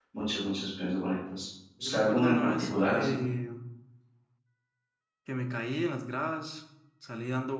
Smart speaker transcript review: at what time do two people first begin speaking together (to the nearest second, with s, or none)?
2 s